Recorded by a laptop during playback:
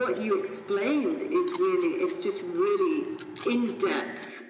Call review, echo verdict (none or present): present